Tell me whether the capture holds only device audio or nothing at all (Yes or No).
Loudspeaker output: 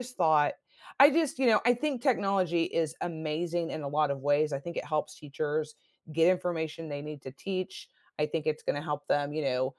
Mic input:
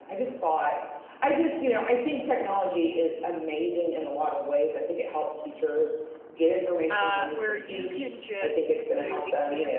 No